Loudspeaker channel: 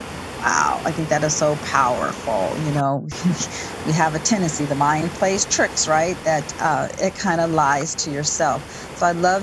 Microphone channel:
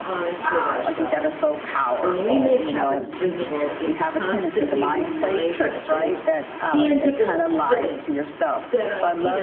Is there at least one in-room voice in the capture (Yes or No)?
Yes